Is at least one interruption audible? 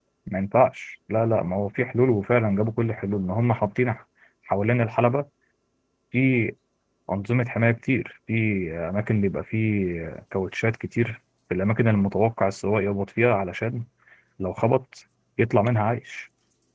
No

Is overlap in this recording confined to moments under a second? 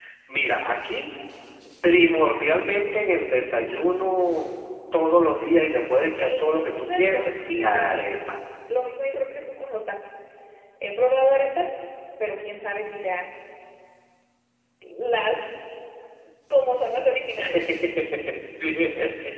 No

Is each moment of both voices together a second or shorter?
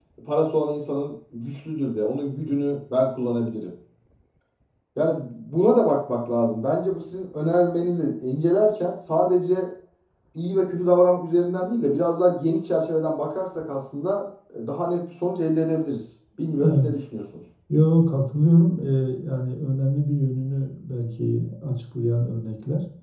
Yes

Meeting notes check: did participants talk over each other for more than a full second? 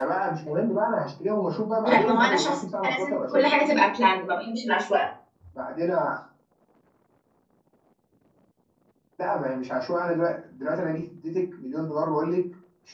Yes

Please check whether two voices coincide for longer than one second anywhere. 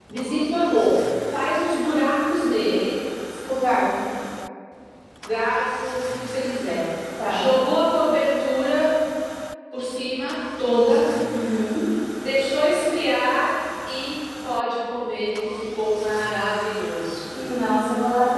No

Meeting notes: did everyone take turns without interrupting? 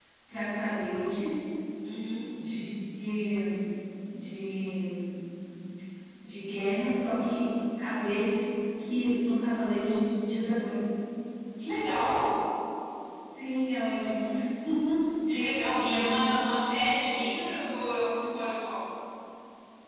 No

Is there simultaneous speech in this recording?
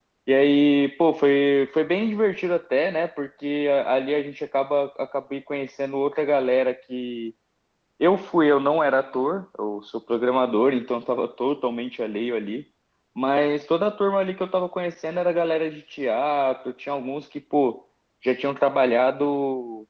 No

